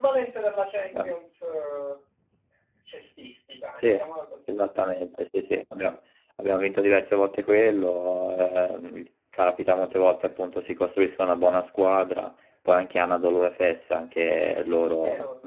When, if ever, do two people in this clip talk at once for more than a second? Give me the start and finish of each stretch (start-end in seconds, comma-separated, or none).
none